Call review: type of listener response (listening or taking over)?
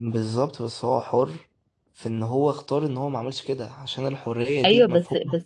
taking over